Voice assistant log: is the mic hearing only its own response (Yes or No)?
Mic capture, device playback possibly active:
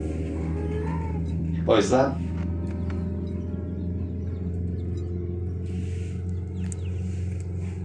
No